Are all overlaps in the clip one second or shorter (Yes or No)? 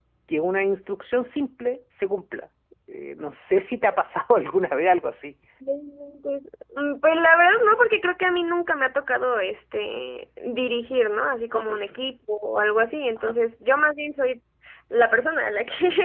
Yes